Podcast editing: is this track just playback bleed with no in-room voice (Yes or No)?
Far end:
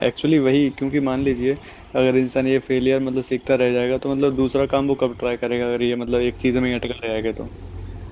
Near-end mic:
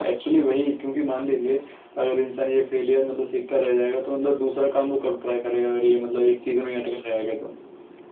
Yes